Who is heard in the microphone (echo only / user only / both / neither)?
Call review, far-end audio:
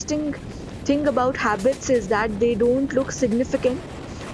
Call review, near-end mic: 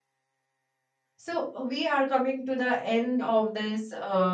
user only